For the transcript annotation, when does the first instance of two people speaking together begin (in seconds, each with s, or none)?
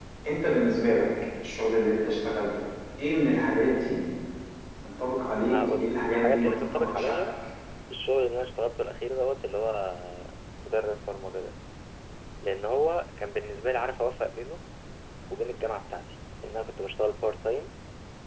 5.5 s